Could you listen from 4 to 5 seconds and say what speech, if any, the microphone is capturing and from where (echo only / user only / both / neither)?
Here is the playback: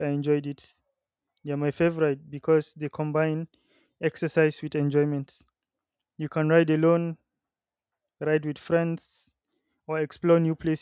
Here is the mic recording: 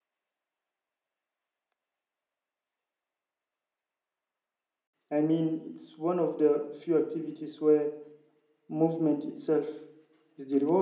neither